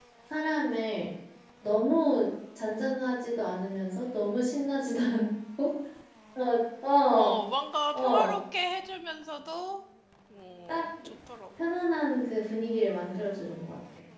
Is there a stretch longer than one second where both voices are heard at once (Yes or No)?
No